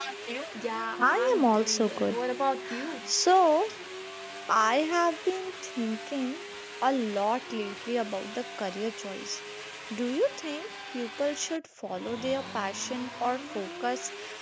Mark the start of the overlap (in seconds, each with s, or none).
1.0 s